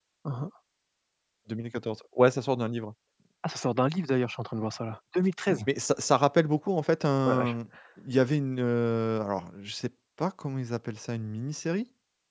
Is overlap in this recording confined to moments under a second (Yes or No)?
Yes